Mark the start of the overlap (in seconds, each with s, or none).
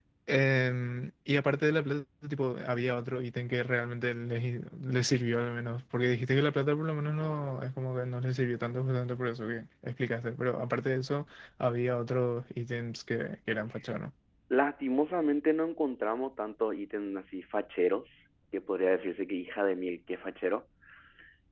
none